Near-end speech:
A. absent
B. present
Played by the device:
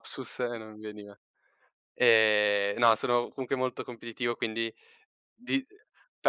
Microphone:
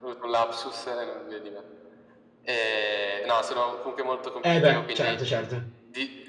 B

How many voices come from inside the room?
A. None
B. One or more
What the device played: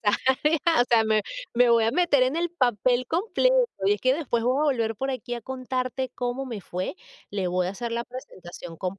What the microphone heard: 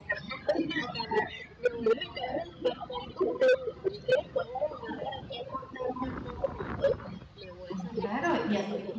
B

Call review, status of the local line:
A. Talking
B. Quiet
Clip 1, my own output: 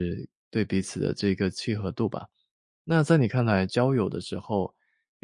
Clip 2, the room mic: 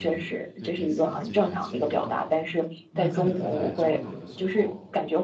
A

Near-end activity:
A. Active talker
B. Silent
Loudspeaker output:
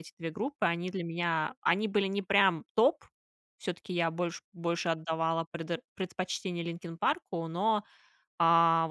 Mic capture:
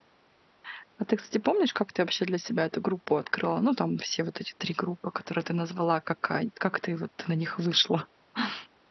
A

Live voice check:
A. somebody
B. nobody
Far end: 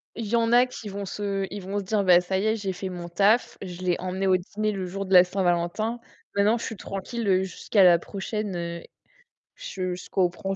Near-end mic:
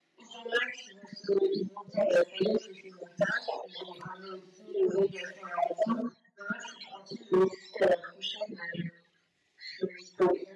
B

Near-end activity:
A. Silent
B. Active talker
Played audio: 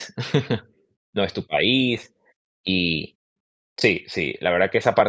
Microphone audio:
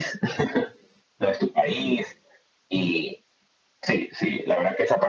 A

